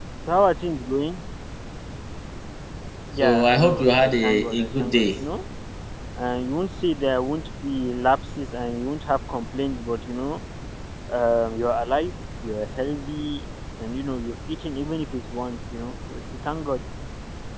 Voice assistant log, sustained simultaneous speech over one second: present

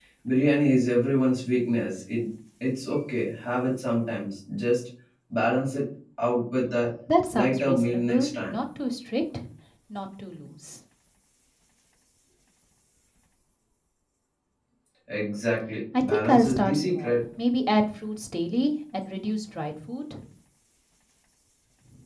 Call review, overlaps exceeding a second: present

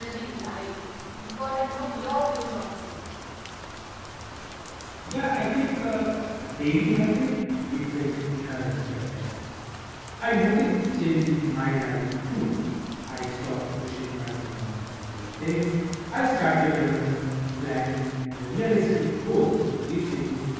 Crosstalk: none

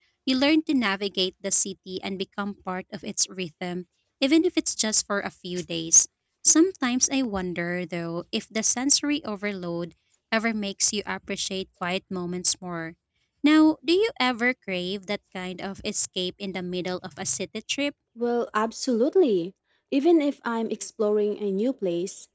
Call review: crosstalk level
none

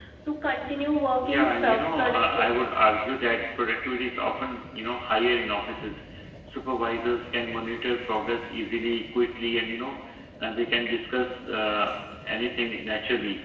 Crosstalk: present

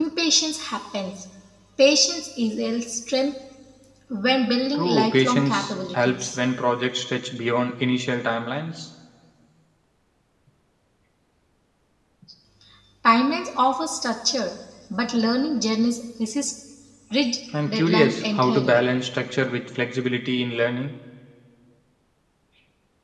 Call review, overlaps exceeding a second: present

